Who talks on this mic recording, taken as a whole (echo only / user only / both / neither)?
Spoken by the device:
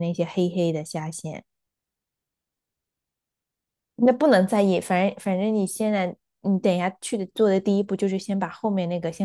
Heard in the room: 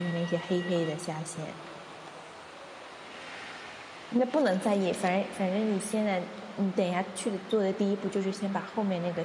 echo only